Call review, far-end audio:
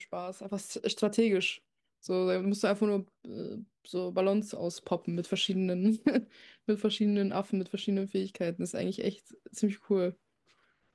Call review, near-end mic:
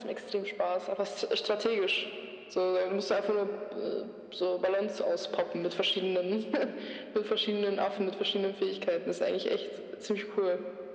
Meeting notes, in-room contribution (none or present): none